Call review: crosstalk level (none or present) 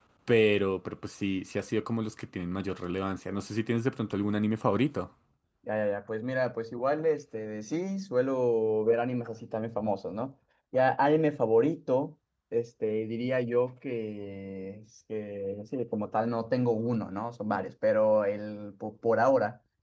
none